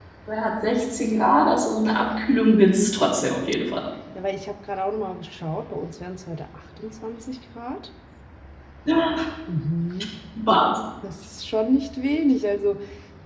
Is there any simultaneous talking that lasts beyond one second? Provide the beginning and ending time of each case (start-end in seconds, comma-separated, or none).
none